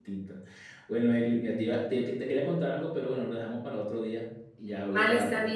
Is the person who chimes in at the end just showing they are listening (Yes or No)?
No